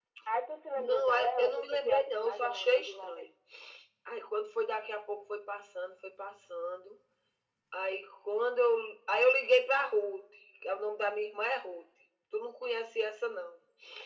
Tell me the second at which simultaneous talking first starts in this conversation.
0.7 s

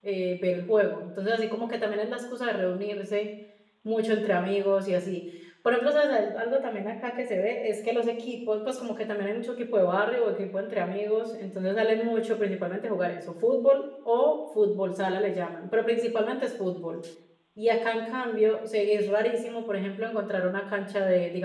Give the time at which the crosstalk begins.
none

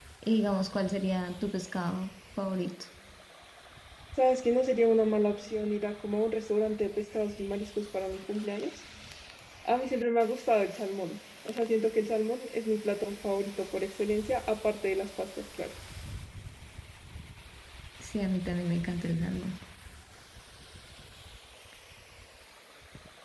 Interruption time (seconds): none

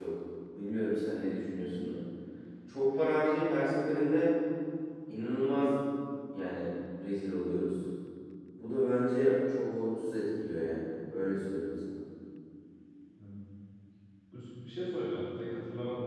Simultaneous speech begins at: none

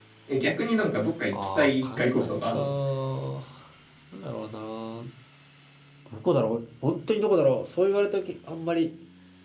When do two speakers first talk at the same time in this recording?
1.3 s

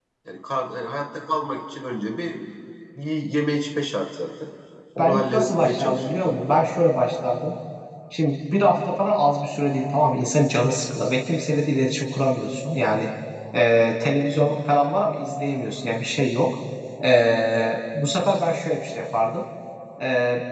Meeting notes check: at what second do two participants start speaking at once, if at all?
5.0 s

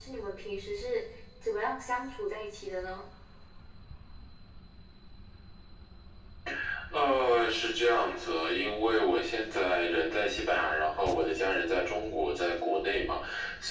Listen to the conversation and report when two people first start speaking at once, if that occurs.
none

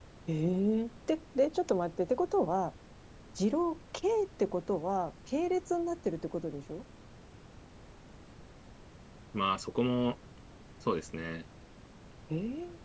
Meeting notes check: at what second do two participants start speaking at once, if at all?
none

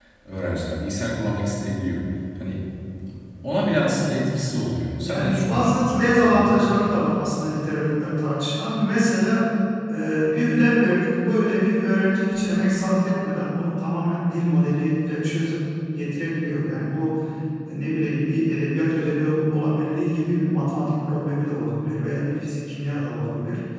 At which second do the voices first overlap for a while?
5.0 s

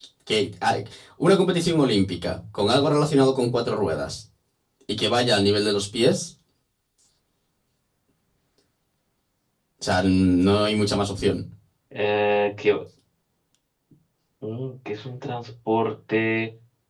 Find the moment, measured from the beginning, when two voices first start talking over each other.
none

